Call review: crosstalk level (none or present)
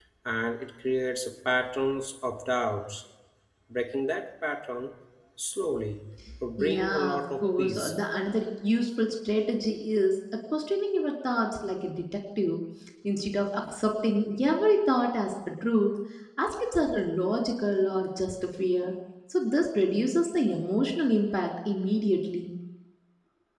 present